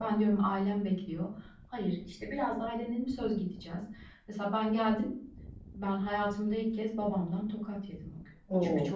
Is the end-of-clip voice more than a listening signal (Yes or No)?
No